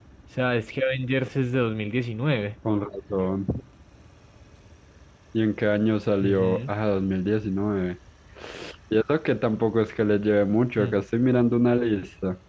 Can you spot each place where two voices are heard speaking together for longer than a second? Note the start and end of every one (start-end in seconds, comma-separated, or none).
none